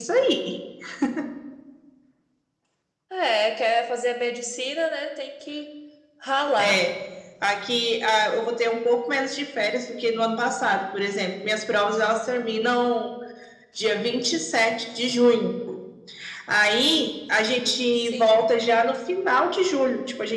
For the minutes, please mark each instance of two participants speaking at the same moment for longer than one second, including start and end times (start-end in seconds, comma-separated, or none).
none